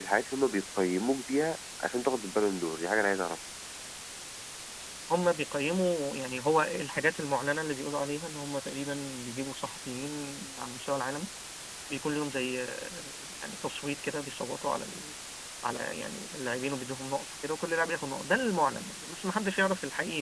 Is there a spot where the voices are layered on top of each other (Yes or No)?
No